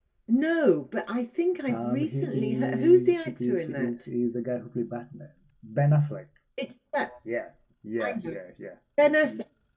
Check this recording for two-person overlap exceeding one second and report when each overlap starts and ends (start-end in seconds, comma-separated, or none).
1.7-4.0